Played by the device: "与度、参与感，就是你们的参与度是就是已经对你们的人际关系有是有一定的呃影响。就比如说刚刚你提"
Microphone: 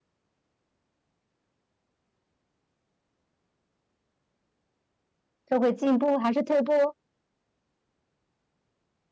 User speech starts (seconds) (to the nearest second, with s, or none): 5 s